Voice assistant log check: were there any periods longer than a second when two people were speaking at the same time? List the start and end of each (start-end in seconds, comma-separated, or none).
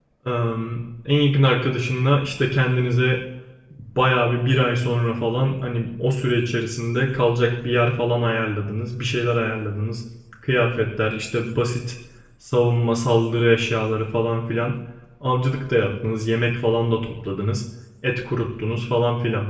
none